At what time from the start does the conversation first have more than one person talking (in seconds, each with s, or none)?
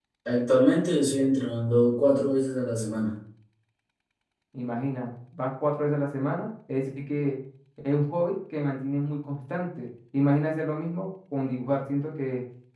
none